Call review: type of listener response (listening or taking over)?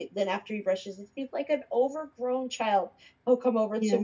listening